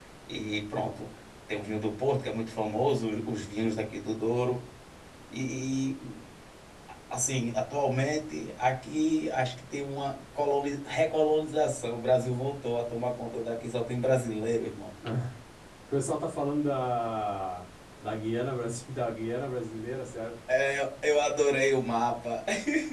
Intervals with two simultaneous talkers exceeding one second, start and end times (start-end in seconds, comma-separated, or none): none